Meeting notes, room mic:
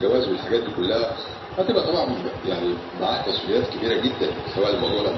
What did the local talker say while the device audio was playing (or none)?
none